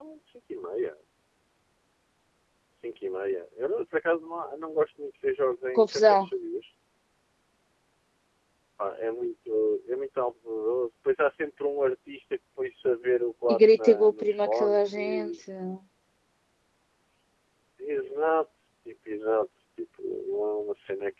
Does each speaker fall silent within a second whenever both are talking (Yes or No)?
No